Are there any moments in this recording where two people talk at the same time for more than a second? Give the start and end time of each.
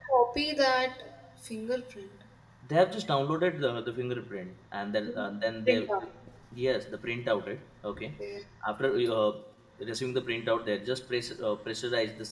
none

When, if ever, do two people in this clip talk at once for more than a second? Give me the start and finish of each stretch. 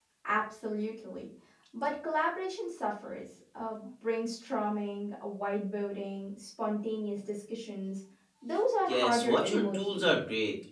8.9-10.1

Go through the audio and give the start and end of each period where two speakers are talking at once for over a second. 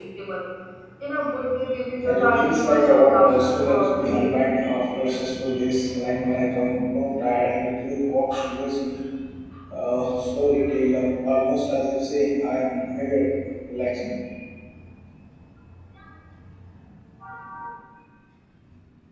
2.0-4.3

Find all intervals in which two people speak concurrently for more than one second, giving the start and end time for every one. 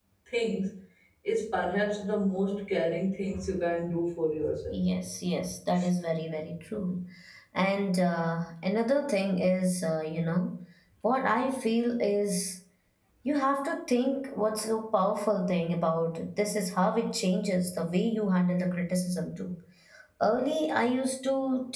none

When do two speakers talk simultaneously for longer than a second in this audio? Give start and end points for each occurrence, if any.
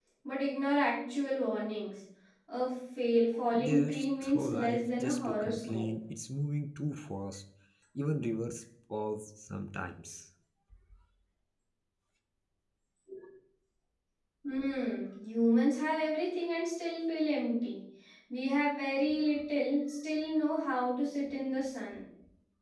3.5-5.9

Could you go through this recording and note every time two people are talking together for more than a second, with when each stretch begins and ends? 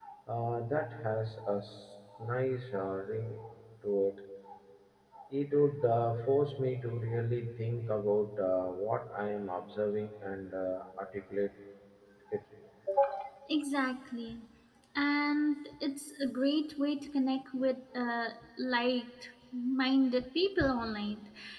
none

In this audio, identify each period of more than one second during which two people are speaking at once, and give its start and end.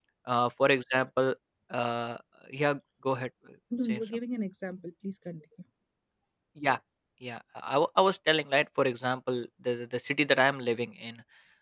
none

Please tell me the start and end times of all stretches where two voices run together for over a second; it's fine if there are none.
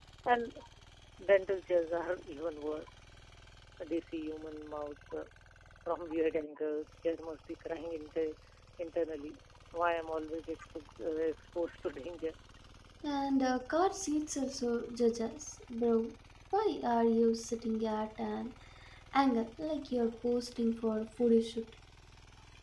none

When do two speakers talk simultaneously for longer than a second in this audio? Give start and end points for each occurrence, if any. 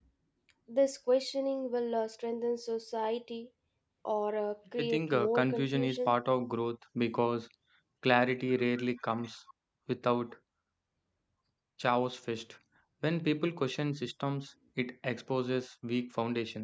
4.8-6.1

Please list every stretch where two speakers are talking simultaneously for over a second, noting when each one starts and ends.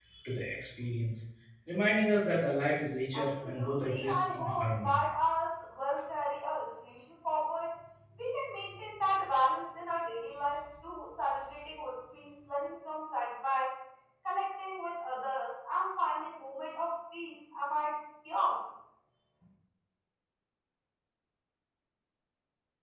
3.1-5.0

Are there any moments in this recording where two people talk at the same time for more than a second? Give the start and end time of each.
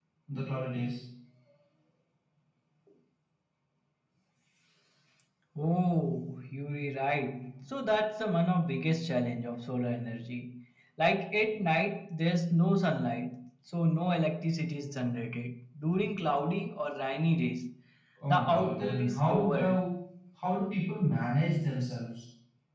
18.3-19.8

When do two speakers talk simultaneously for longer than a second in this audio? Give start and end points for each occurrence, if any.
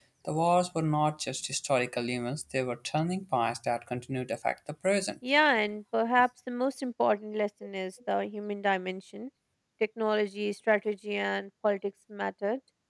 none

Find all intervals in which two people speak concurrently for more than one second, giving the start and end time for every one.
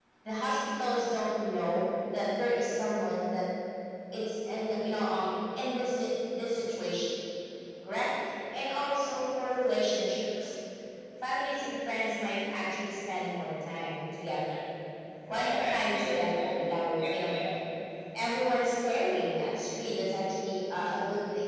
15.3-16.6

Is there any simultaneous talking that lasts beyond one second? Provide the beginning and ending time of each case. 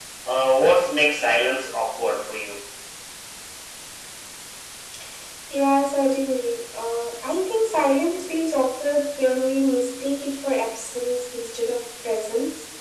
none

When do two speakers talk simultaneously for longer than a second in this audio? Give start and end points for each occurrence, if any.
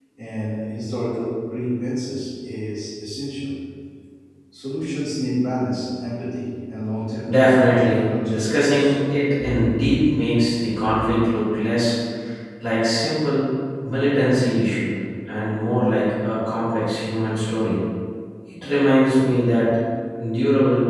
7.3-8.9

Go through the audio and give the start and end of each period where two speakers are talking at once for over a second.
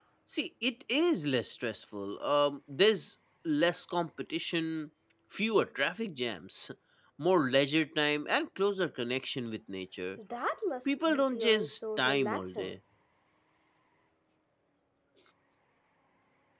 10.9-12.7

